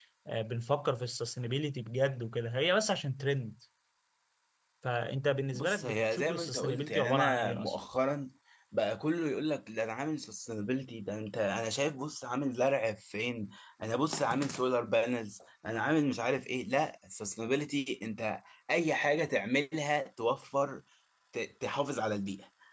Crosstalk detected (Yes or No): Yes